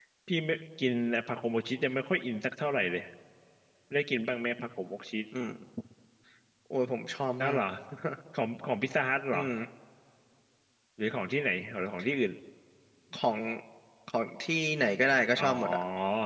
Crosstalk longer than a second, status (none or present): none